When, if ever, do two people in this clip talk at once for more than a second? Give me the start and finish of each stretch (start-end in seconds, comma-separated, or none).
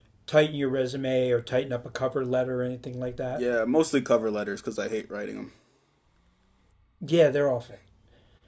none